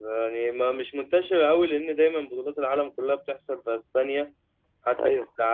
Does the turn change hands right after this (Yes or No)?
No